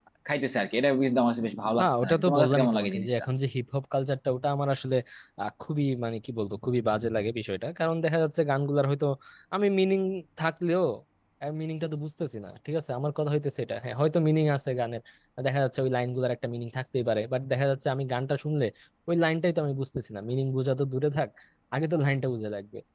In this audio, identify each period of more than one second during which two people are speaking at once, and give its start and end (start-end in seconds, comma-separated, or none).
1.8-3.2